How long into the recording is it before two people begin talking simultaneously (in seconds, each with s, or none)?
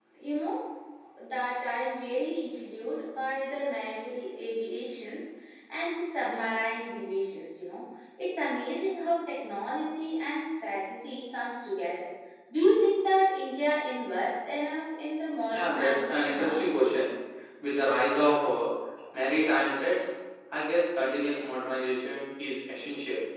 15.5 s